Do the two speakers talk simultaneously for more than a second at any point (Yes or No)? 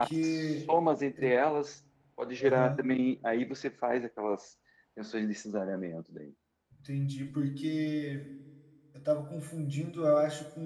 No